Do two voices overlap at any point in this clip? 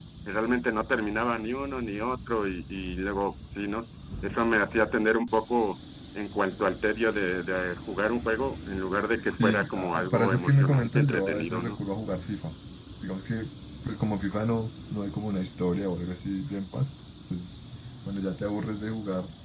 Yes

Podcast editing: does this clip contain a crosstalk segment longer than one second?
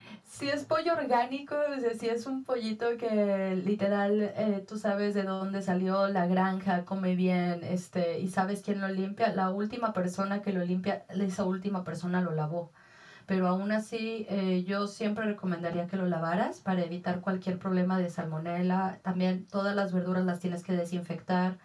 No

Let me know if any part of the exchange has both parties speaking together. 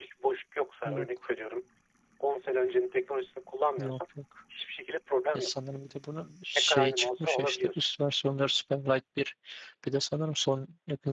Yes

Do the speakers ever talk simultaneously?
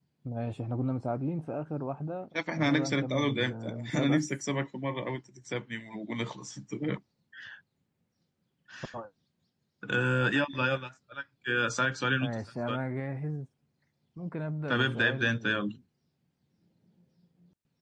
Yes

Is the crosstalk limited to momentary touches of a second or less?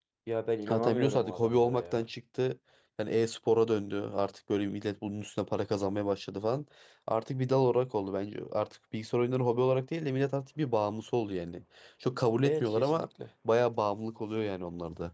No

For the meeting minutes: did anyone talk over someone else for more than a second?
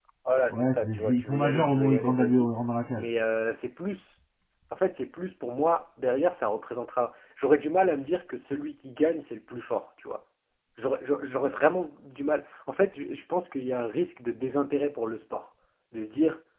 Yes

